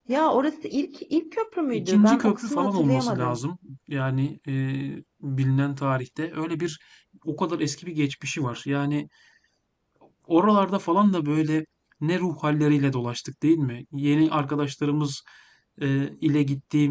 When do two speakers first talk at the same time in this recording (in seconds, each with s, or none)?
1.7 s